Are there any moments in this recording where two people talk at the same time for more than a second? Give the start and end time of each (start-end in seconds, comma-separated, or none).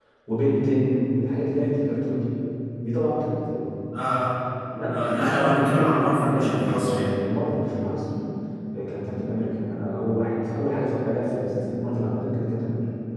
5.1-7.1